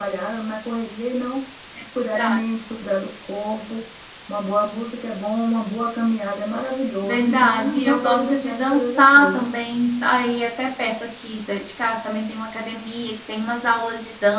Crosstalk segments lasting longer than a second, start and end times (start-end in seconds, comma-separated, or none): 7.0-9.5